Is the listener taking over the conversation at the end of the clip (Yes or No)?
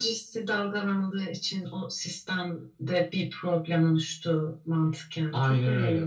Yes